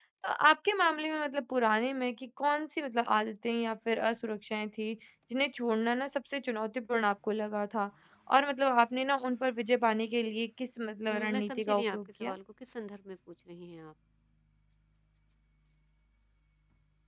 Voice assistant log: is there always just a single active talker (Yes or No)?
No